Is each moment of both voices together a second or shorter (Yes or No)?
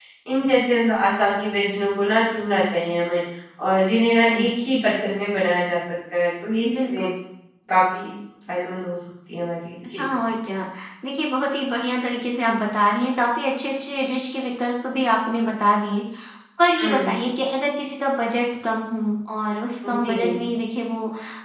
Yes